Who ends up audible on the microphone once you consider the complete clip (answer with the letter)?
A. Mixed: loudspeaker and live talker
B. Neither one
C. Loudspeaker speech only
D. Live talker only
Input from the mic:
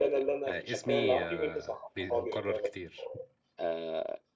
A